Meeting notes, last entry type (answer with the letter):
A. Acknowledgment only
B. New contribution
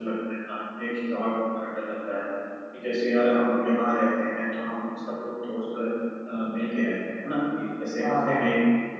A